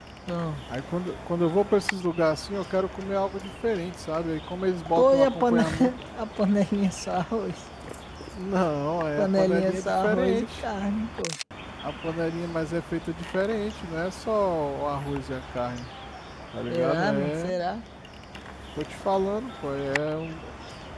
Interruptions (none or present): present